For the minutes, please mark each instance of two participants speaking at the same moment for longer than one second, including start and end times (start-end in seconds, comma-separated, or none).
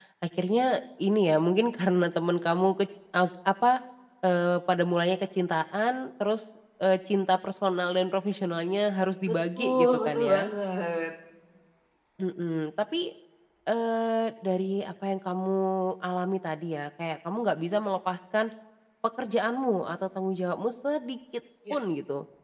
9.3-10.5